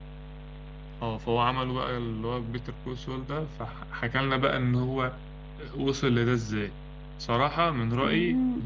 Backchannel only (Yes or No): Yes